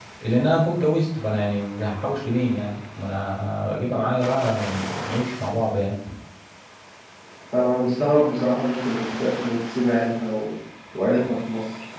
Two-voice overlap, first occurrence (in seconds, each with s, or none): none